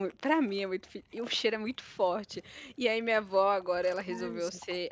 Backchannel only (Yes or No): Yes